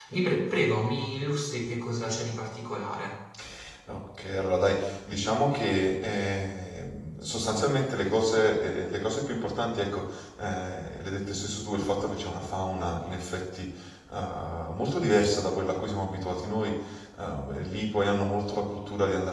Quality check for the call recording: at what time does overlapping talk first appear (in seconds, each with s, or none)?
none